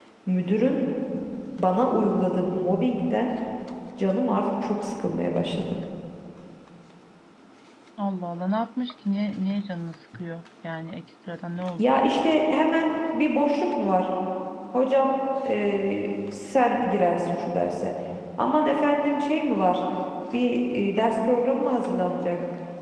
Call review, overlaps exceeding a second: none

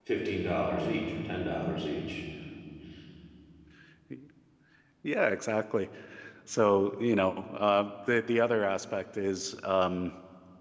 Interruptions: none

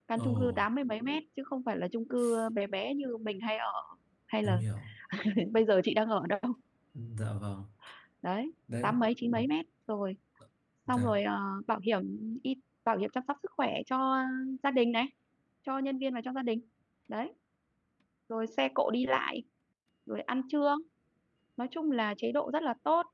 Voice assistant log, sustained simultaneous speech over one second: none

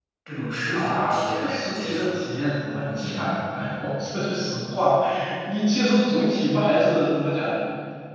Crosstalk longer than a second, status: present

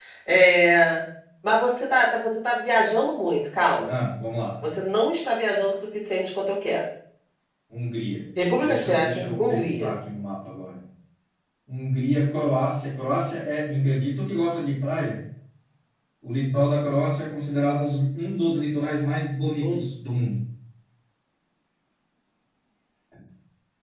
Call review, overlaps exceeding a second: present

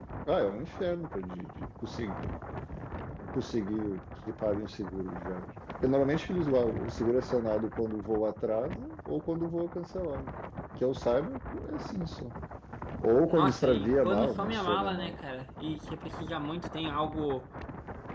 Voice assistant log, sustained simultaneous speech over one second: present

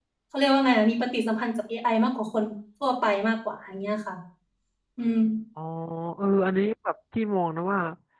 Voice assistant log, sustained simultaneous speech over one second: none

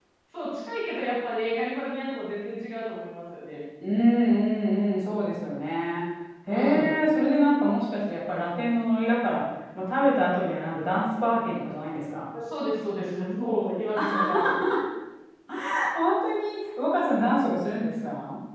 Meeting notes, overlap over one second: none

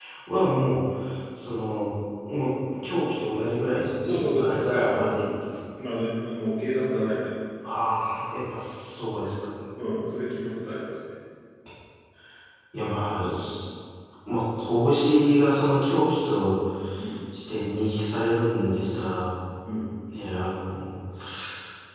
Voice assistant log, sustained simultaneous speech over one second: present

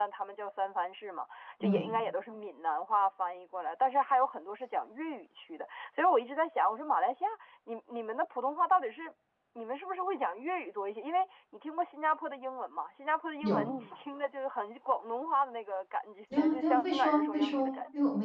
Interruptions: present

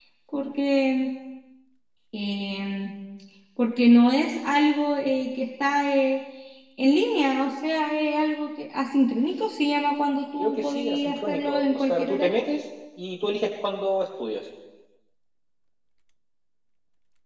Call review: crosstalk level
present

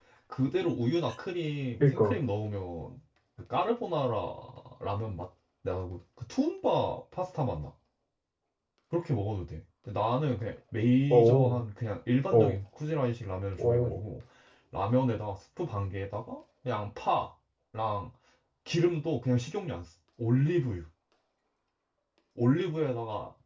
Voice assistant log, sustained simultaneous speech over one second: none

